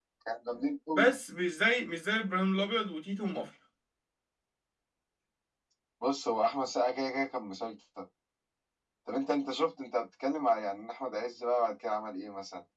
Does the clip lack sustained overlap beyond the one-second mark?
Yes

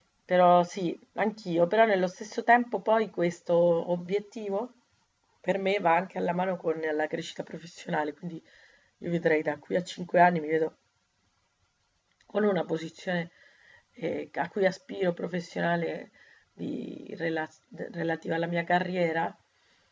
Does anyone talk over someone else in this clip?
No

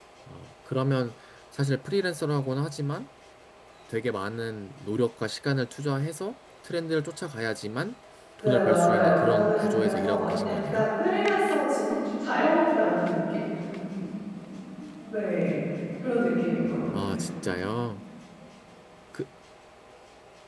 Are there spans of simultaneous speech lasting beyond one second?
Yes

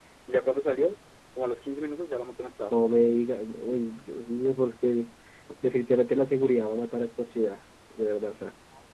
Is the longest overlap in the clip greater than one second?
No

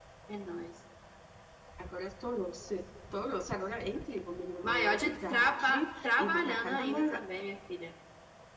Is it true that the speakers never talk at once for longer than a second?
No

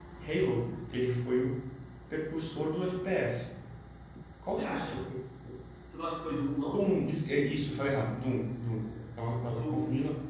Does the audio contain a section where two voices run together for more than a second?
No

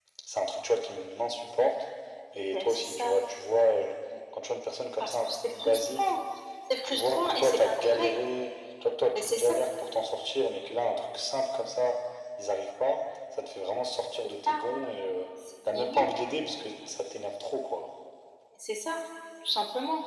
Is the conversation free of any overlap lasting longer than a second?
No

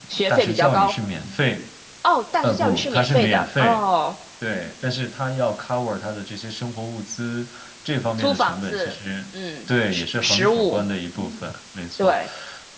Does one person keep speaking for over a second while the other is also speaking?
Yes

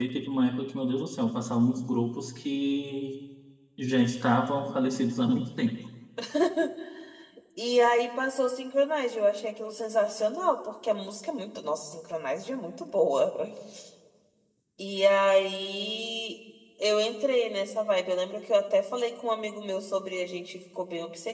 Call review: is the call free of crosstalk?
Yes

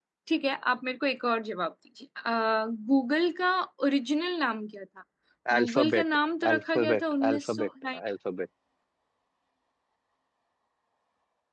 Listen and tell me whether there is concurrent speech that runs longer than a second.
Yes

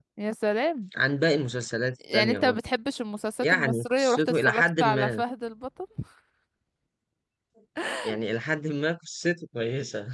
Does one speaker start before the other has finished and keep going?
Yes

